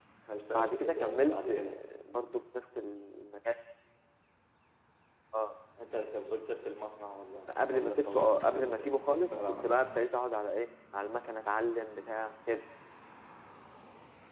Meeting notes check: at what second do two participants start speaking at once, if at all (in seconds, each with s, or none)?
0.5 s